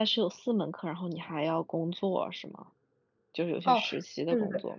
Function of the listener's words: taking over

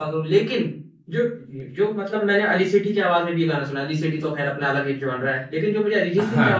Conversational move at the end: listening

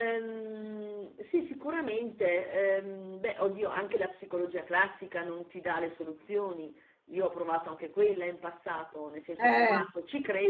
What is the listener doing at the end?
listening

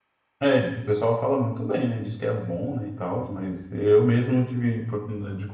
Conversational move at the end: listening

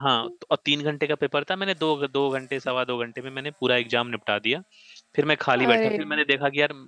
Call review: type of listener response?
listening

